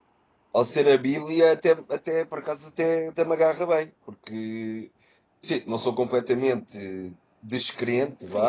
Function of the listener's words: taking over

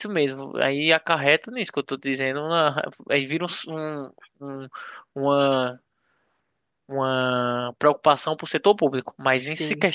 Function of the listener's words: listening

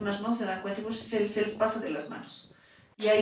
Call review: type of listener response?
listening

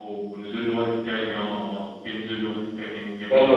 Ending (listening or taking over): taking over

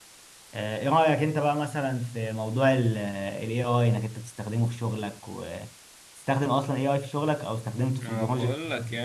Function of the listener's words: taking over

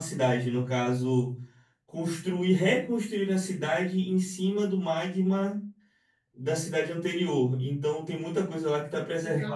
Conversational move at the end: taking over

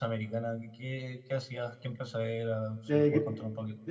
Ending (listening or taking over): taking over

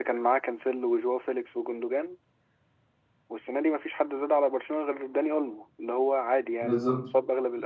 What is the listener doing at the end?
listening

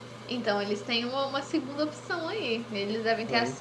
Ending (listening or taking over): listening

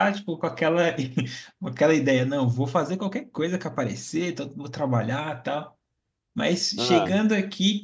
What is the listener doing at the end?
listening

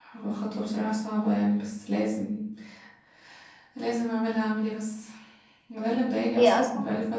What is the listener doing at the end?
listening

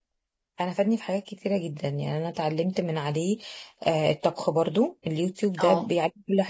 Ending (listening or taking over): listening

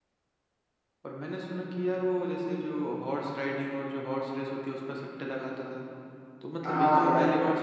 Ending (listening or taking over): listening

